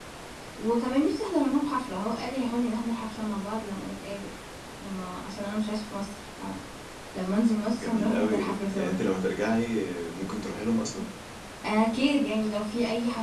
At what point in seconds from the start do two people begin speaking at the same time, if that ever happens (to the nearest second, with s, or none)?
8 s